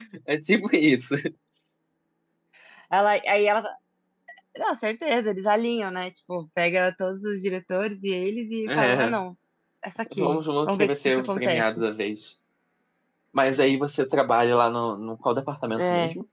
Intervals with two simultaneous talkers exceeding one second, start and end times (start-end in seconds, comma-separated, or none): 10.2-11.6